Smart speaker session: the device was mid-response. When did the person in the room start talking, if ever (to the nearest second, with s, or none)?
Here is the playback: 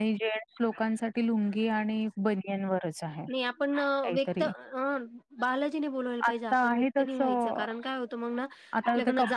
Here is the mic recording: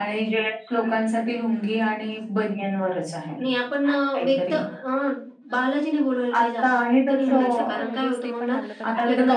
7 s